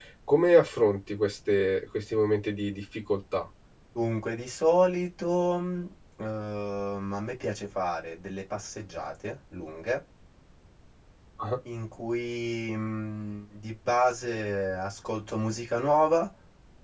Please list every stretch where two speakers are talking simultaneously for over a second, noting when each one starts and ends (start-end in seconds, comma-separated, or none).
none